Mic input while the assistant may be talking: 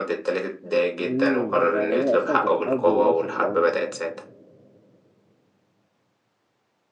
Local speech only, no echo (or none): امم يعني هي اصلا كانت حرب وراثه في الاول